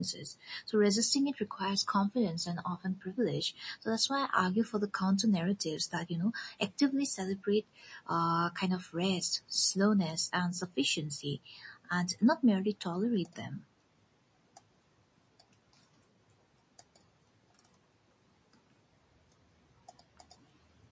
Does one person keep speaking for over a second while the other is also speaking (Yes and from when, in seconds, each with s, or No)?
No